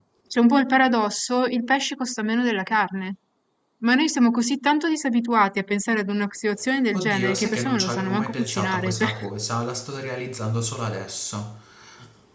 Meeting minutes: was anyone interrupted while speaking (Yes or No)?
Yes